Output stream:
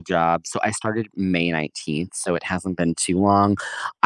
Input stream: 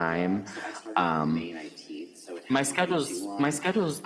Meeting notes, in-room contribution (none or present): present